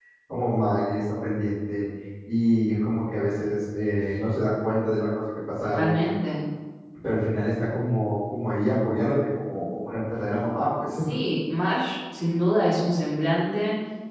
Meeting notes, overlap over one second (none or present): none